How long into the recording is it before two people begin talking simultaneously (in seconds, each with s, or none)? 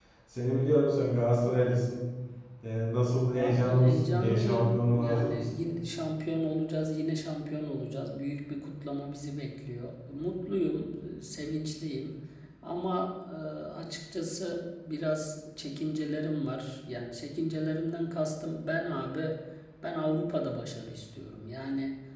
3.4 s